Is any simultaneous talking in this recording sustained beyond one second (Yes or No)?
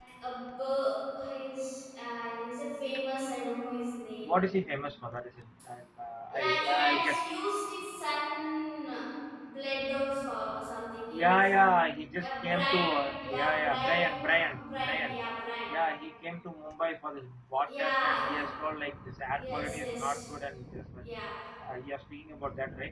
Yes